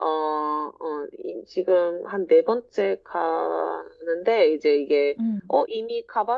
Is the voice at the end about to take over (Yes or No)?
No